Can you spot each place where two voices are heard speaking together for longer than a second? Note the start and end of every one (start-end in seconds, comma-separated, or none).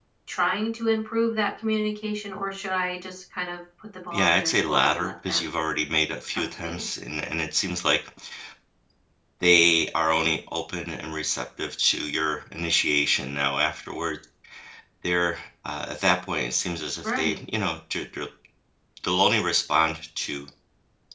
4.1-5.5